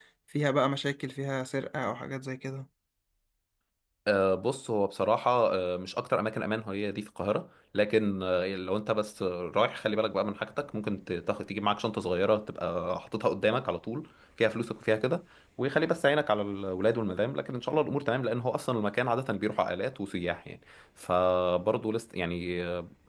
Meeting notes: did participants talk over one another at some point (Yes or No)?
No